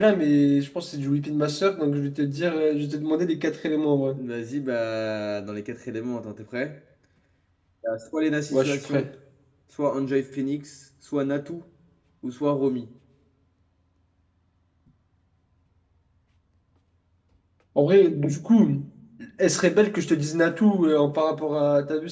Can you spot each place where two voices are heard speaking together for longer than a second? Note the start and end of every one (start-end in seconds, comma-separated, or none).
none